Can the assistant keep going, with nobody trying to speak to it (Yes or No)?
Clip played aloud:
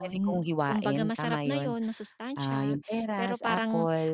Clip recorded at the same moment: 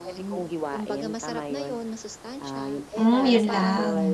No